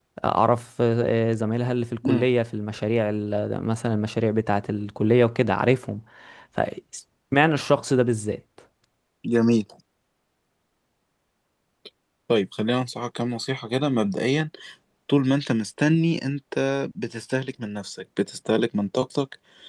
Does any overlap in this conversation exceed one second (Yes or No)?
No